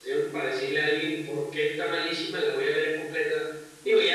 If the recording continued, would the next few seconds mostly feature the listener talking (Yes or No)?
No